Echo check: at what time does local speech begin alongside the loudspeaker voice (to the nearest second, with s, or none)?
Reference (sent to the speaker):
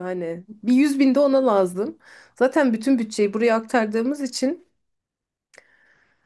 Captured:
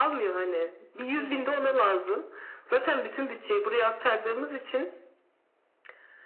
1 s